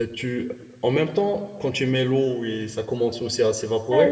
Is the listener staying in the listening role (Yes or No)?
No